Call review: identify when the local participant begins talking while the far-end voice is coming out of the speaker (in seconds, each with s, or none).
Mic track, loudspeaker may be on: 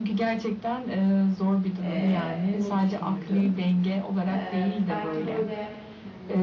1.8 s